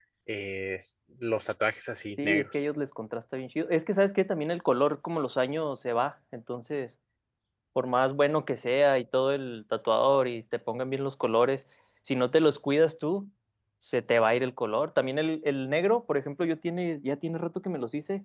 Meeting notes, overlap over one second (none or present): none